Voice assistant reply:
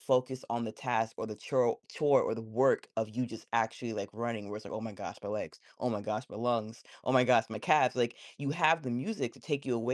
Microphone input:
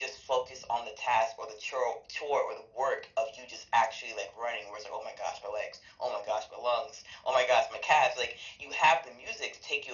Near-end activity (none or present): none